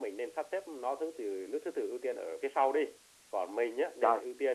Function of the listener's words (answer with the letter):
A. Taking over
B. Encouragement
B